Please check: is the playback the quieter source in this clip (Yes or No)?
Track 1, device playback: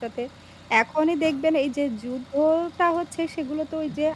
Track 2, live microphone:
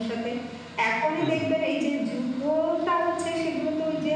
No